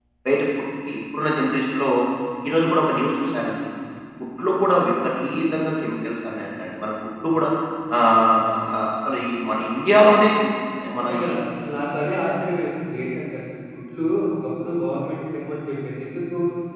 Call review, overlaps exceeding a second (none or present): none